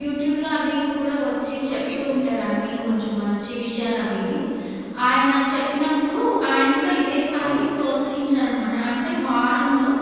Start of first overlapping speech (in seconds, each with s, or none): 1.7 s